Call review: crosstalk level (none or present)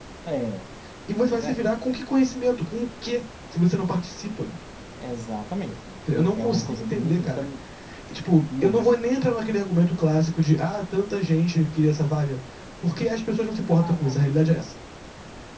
present